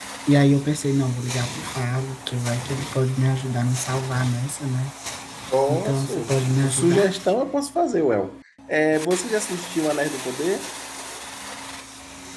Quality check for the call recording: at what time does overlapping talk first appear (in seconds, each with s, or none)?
5.7 s